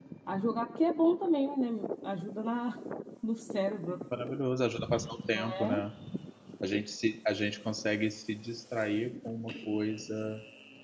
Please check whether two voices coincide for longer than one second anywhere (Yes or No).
No